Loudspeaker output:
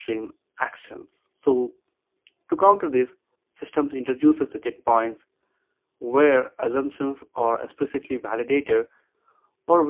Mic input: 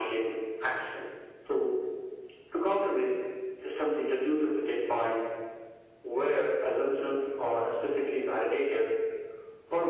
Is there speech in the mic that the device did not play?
No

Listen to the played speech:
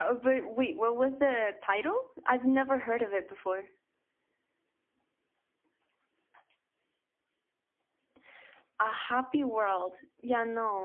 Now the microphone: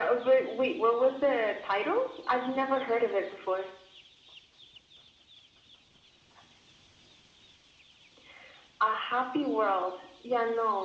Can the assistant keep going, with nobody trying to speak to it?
Yes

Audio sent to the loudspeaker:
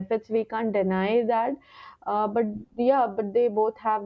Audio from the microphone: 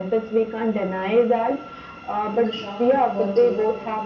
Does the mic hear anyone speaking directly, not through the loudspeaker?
Yes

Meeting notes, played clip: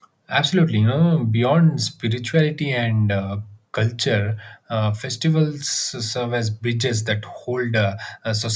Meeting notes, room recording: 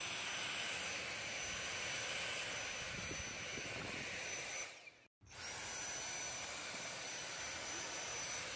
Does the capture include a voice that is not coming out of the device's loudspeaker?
No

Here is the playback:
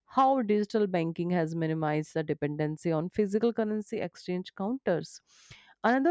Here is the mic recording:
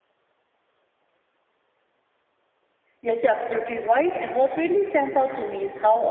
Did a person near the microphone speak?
Yes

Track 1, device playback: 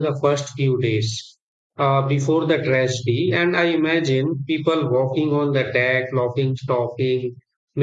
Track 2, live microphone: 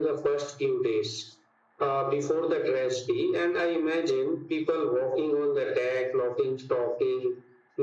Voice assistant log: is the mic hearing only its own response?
Yes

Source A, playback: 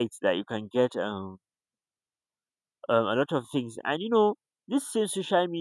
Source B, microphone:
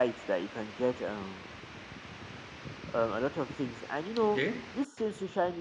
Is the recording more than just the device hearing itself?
Yes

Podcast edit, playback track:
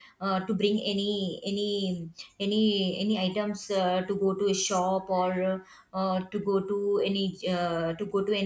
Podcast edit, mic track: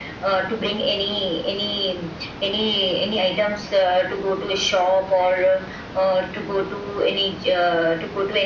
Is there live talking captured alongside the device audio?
No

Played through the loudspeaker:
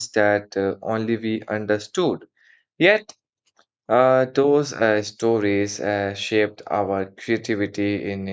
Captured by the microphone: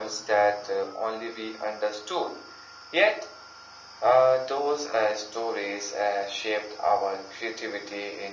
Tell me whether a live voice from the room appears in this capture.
No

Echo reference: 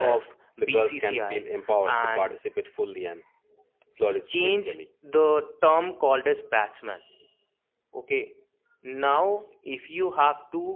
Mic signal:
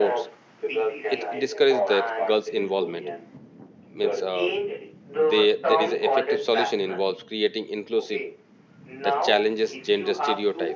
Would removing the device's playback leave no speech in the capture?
No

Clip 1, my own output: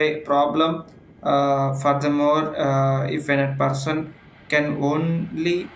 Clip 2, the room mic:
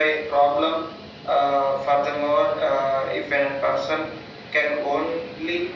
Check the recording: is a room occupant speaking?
No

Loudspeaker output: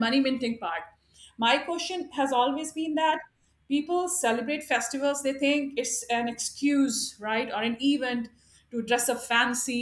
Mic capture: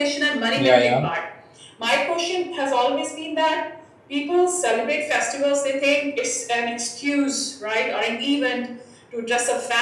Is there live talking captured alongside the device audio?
Yes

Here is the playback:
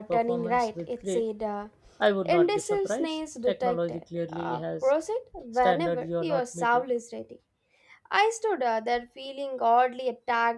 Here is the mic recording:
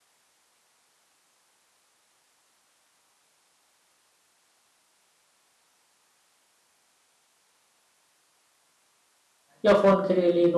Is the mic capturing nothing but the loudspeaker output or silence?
No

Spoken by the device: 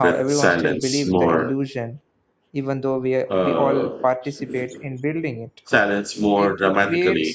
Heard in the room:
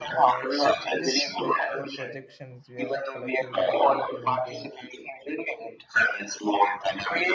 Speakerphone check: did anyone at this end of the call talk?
Yes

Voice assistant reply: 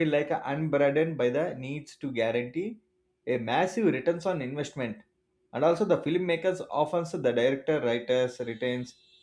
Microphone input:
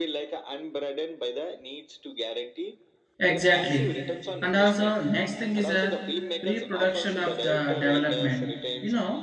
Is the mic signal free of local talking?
No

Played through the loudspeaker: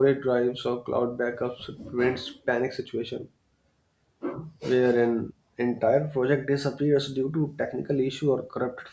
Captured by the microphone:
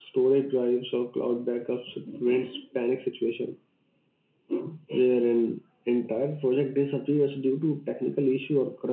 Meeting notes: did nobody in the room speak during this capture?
Yes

